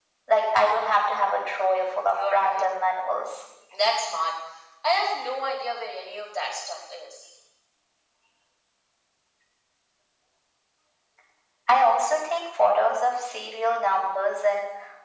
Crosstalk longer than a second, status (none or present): present